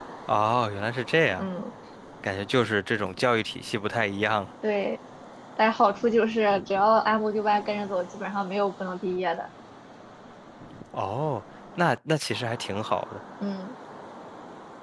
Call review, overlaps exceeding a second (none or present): none